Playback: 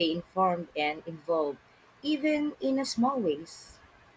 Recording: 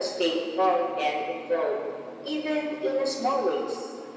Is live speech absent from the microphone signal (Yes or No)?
Yes